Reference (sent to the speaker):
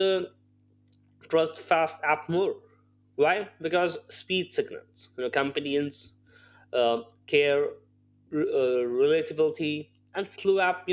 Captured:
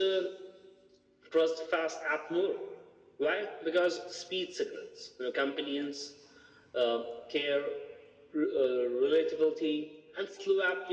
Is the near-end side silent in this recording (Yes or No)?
Yes